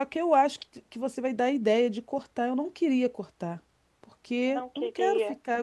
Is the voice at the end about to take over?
No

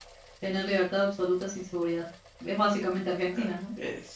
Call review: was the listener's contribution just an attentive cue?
No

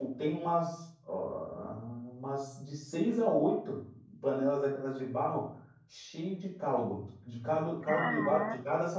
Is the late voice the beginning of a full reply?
No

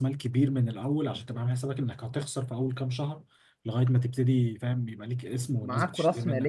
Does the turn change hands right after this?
Yes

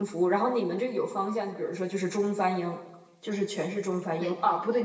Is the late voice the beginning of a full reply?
No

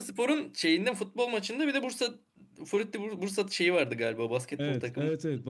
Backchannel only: No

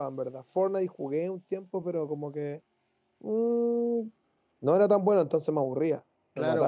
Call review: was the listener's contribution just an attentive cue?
No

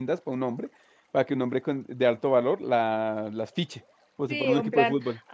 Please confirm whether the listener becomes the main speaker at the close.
Yes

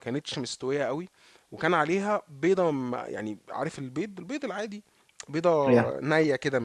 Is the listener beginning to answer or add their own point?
No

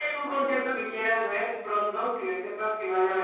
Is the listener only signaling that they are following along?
No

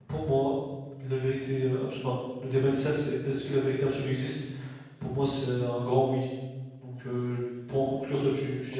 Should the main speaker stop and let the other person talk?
Yes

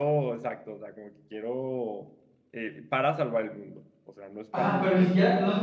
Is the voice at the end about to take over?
Yes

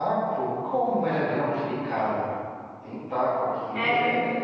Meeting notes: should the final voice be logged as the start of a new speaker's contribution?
No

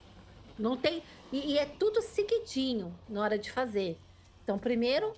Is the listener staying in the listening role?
Yes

